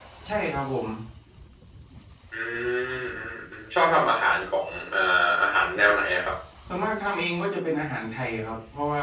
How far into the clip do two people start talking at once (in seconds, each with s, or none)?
none